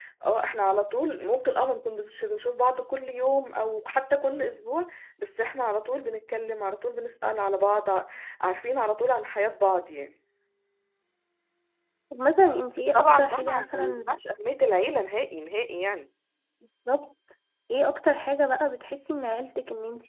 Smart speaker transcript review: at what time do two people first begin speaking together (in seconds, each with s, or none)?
12.9 s